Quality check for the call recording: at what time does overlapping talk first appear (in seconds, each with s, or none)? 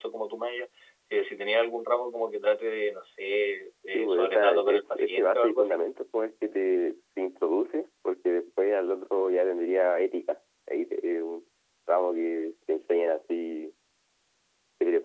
3.9 s